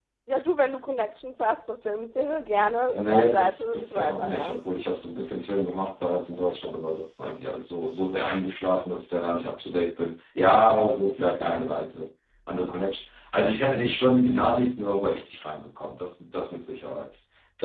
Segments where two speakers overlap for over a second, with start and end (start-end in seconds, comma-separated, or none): 3.0-4.6